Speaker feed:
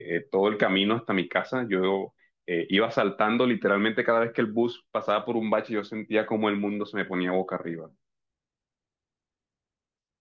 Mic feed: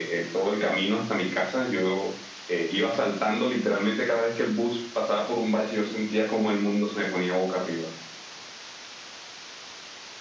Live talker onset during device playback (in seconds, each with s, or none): none